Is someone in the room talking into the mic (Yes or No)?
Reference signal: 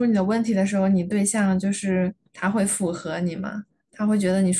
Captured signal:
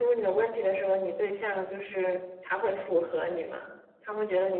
No